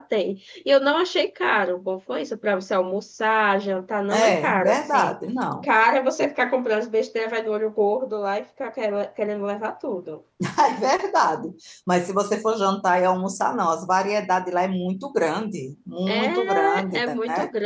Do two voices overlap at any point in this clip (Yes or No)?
Yes